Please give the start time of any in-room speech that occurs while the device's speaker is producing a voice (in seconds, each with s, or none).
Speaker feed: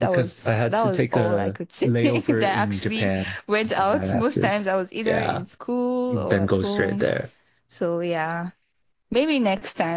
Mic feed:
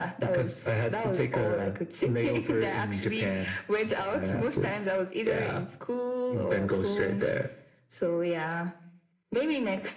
none